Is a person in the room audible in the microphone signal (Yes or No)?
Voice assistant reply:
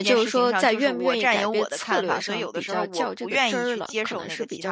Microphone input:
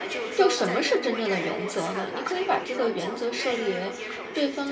Yes